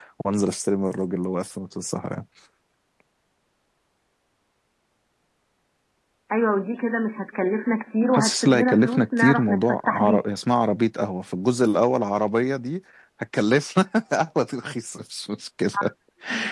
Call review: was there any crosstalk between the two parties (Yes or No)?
Yes